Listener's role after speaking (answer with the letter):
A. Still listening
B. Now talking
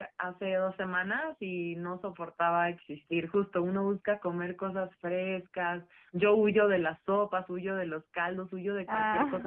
A